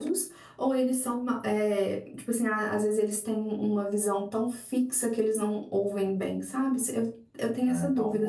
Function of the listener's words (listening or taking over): taking over